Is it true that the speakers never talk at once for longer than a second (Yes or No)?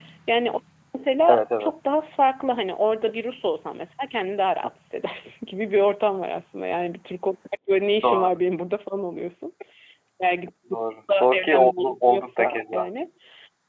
No